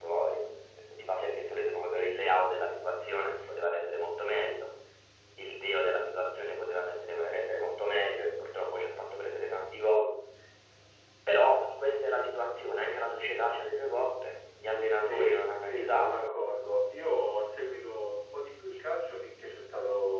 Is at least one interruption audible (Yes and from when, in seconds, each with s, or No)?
Yes, from 15.0 s